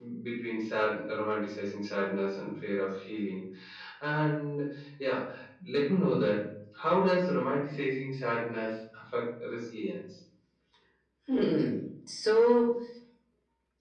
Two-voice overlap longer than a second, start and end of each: none

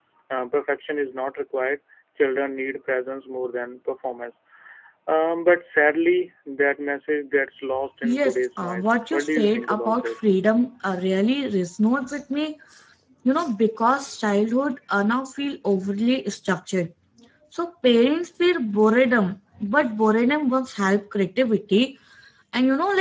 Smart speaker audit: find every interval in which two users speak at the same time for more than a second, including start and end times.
8.0-10.2

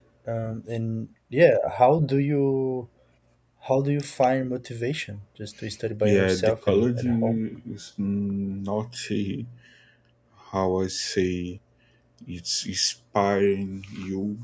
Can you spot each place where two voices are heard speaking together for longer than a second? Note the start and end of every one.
6.0-7.4

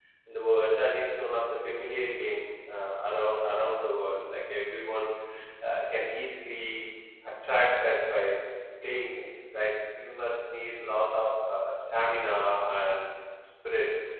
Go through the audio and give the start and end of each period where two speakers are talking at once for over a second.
none

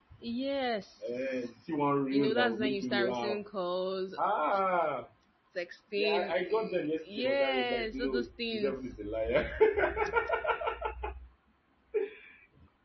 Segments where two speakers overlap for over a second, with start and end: 2.1-3.4, 6.0-8.9

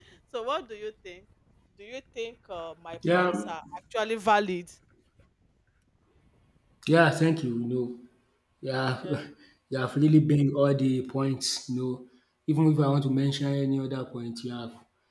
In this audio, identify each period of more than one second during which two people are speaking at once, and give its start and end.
none

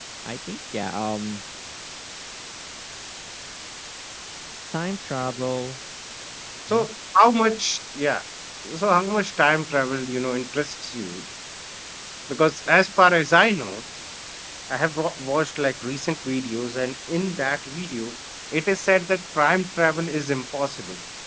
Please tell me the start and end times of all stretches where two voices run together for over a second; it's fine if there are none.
none

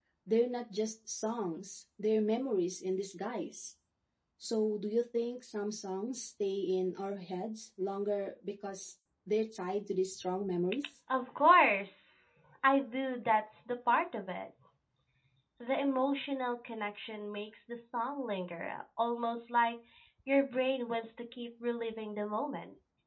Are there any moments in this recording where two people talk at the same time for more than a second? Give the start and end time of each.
none

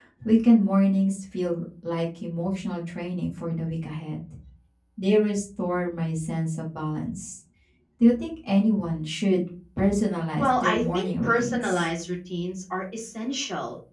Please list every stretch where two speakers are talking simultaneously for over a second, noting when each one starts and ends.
10.4-11.9

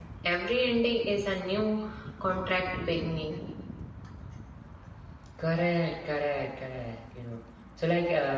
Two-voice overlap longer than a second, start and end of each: none

